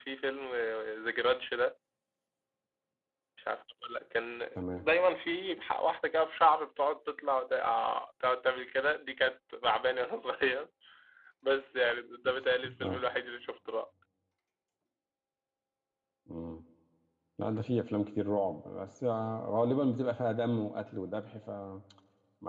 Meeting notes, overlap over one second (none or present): none